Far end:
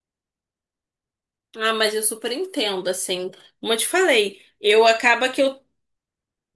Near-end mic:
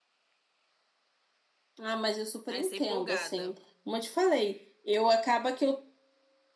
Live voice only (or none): Aí sei empolgada.